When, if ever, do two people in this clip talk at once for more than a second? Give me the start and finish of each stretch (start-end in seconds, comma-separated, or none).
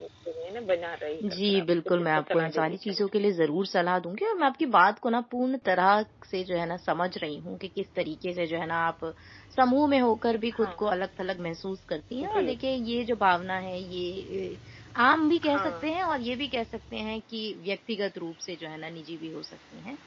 1.3-3.0